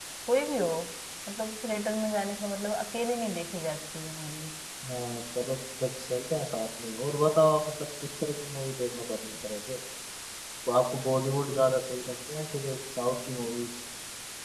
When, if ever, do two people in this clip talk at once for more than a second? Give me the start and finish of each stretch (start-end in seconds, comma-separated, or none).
none